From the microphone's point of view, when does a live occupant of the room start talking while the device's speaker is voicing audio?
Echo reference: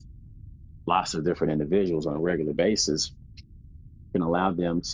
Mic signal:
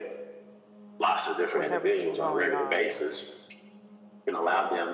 1.6 s

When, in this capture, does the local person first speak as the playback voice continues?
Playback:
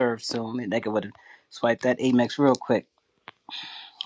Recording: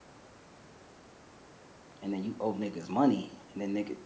2.0 s

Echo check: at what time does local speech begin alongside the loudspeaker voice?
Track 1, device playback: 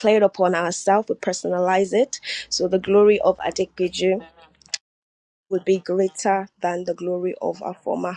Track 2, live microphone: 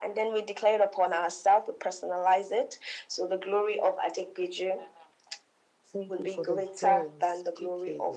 5.8 s

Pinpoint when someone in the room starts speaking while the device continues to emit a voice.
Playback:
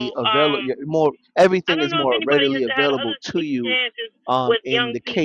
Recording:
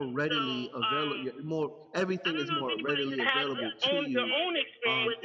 3.2 s

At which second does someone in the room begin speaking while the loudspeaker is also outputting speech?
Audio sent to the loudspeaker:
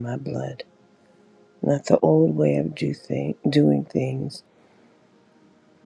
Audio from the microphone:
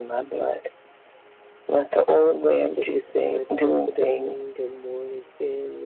2.7 s

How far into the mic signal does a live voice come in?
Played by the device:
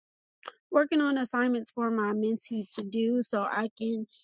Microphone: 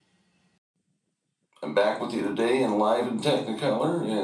1.6 s

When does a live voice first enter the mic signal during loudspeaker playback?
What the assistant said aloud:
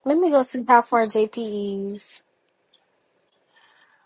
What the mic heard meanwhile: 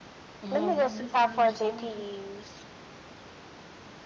0.4 s

